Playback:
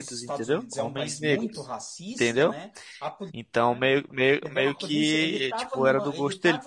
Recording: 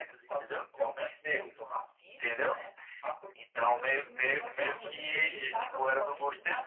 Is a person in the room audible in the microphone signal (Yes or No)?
Yes